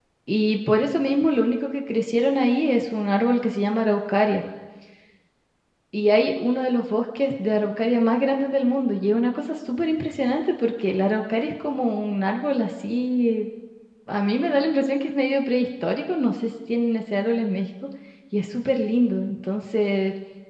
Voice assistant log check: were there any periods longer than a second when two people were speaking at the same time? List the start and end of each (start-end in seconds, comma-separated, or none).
none